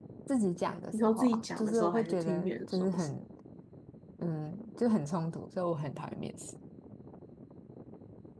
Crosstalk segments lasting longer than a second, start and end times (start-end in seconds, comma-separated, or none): 0.9-3.1